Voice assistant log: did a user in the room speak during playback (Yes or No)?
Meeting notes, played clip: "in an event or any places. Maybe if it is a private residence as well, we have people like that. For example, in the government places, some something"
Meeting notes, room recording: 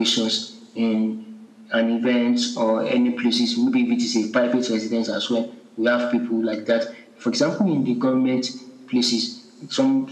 No